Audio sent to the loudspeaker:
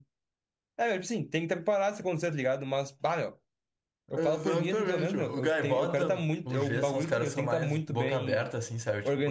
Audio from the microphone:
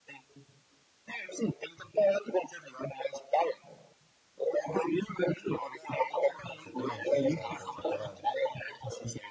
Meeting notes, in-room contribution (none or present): present